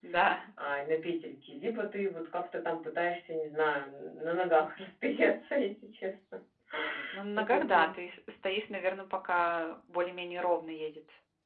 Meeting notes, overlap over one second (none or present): none